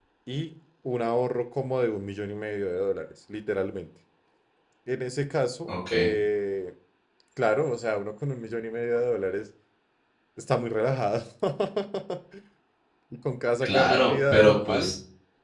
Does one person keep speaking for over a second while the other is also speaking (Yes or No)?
Yes